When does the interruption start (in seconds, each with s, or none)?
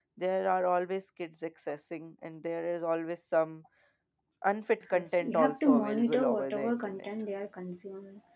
4.9 s